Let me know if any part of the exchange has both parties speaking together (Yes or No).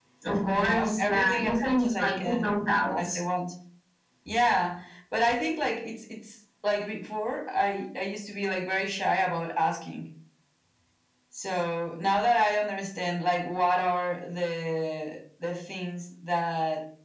Yes